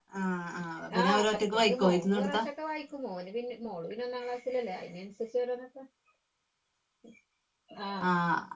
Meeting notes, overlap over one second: present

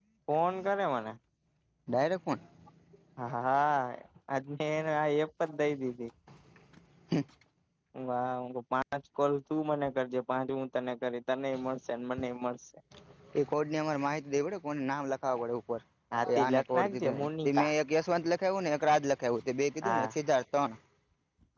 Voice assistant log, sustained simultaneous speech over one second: present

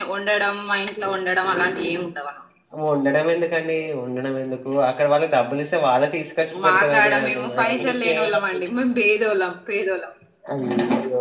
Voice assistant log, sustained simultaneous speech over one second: present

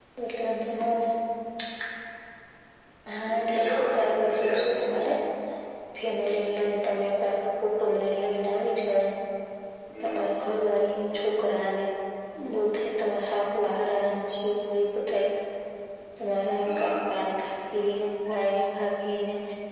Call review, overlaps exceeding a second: present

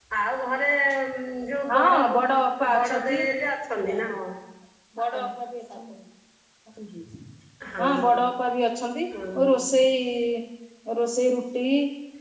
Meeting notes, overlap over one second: present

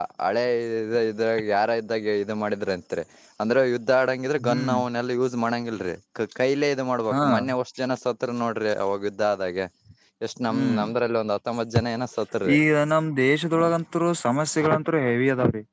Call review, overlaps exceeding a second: none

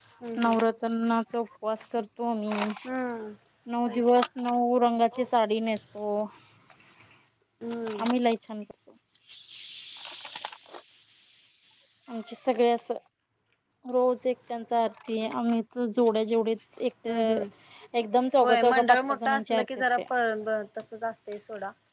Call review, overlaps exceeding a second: present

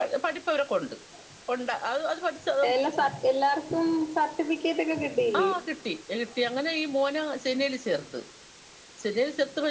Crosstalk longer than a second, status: none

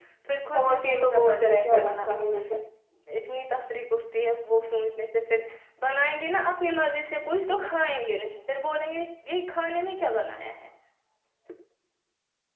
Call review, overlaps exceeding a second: present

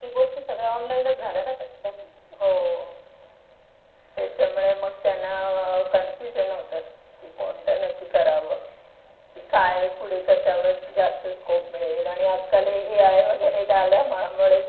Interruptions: none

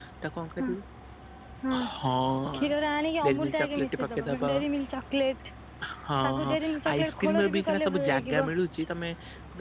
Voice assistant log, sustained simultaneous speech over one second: present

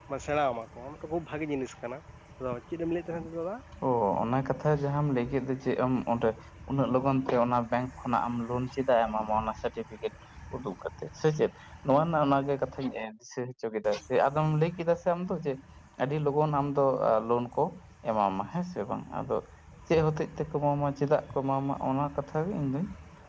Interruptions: none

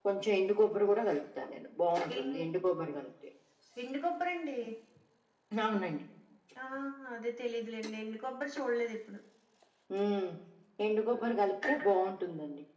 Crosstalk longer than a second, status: none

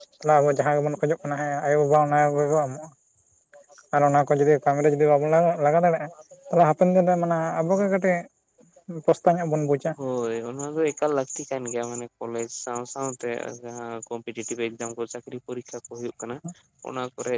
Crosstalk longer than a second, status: none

